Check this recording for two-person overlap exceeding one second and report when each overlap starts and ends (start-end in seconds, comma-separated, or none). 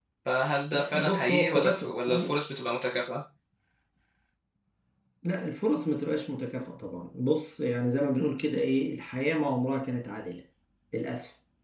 1.0-2.3